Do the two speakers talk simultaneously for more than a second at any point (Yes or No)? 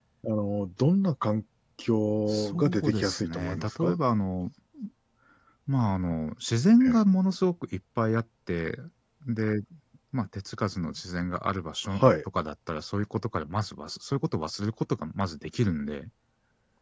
Yes